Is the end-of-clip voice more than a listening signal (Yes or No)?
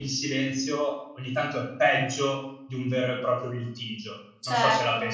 Yes